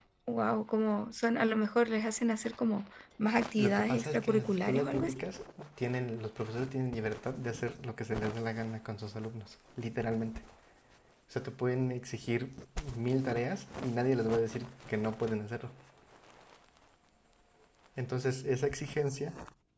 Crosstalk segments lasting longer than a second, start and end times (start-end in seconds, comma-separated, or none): 3.6-5.2